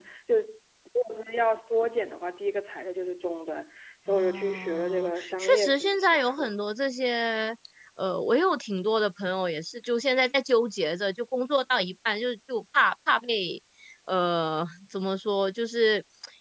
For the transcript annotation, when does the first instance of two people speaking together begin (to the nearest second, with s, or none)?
4 s